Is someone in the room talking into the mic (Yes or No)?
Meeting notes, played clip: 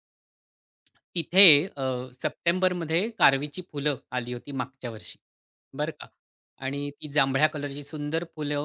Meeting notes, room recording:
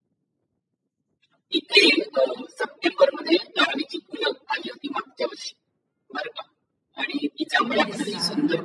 Yes